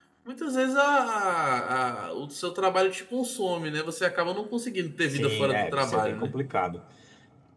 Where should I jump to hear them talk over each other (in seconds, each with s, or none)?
5.1 s